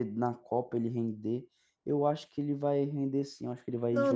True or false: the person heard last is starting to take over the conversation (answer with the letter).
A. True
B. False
A